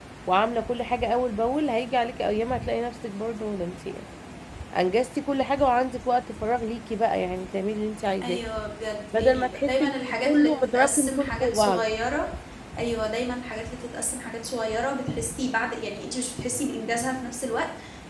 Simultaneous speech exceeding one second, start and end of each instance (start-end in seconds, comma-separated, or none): 9.2-11.9